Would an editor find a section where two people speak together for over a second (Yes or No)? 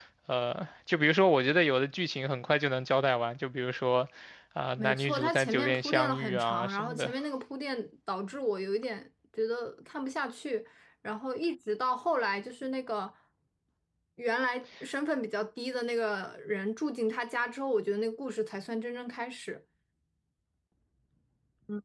Yes